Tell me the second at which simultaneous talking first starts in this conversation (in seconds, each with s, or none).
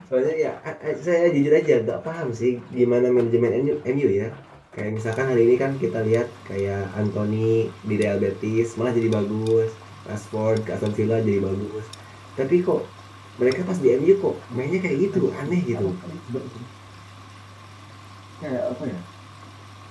14.5 s